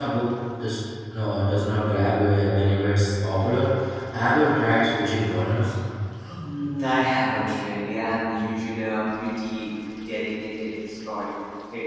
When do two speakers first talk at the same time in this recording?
none

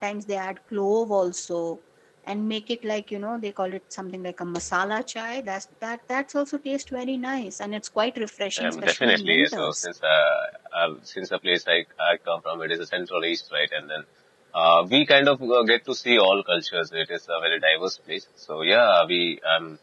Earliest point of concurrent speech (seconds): 9 s

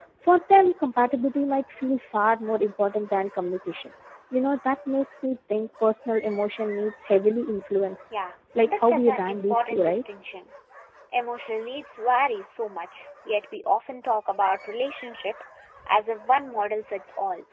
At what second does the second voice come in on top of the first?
9 s

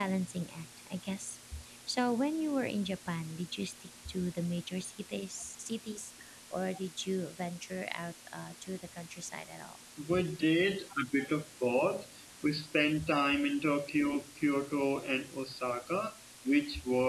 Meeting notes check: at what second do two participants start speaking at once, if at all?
none

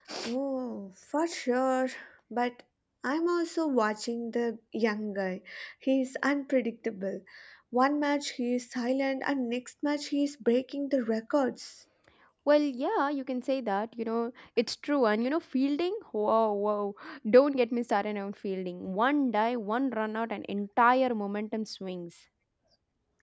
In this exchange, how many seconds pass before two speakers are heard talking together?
none

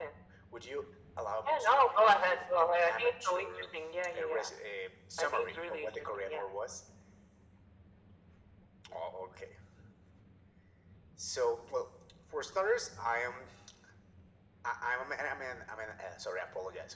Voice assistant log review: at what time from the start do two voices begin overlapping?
1 s

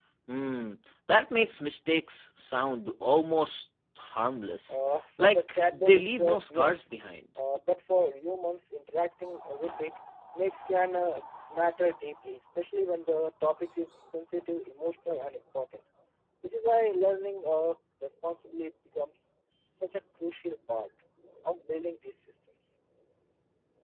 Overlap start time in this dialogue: 5 s

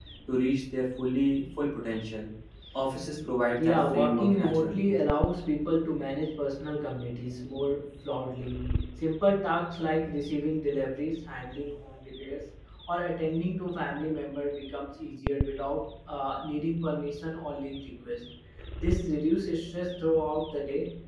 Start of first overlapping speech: 4 s

